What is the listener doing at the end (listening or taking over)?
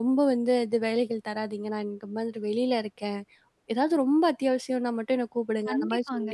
taking over